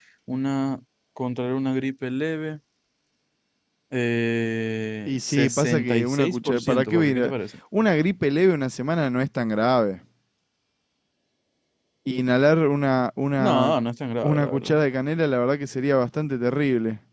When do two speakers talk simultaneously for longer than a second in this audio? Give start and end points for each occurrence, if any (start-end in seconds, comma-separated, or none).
5.1-7.3